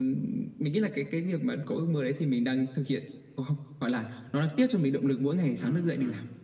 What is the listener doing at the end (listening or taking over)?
taking over